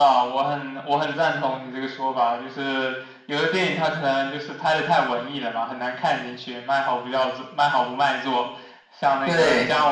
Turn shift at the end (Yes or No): No